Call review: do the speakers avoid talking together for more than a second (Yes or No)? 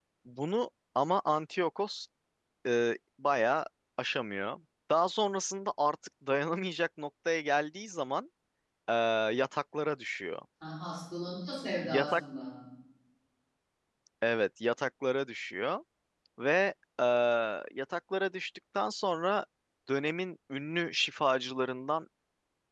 Yes